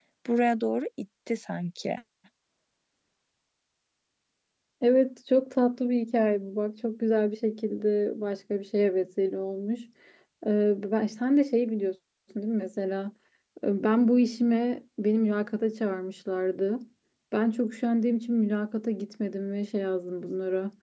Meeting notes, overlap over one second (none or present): none